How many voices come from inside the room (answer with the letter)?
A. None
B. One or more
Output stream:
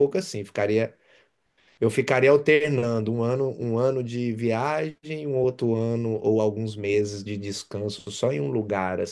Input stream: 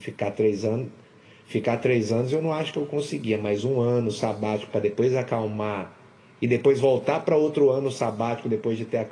B